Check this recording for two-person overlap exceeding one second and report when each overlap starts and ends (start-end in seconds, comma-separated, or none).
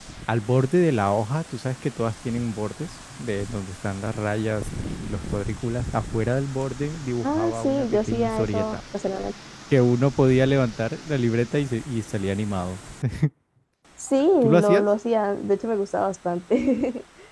7.2-8.8